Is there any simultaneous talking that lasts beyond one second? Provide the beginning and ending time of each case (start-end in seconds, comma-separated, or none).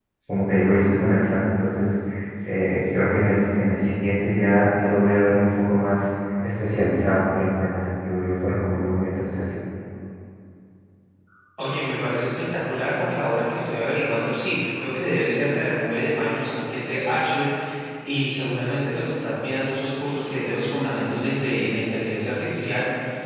none